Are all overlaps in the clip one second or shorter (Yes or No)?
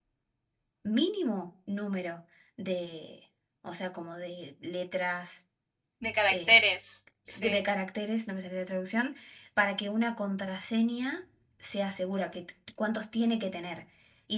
Yes